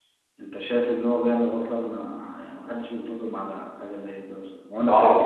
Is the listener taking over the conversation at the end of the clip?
Yes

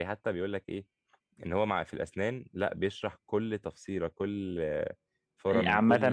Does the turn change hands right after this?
Yes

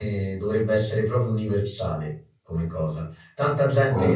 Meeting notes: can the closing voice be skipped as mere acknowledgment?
Yes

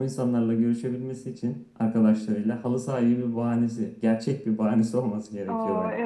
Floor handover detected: Yes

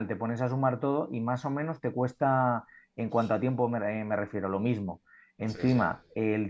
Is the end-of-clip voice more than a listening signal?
No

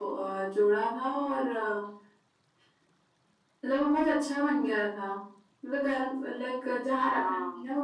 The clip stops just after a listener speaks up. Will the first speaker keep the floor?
Yes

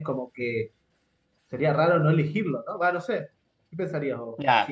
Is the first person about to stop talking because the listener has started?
Yes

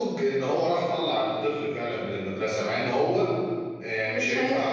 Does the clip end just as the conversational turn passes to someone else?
No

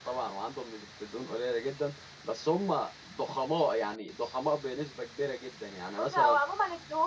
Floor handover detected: Yes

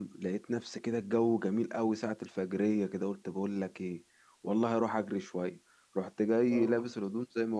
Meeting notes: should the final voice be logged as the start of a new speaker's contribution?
No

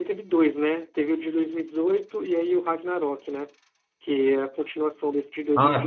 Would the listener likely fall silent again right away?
No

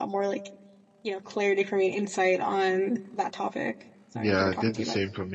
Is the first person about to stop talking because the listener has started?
Yes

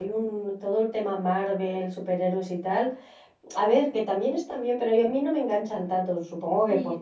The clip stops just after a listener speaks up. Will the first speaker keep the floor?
No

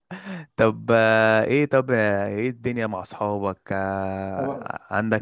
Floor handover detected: No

